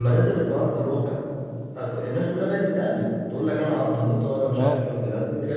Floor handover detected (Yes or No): No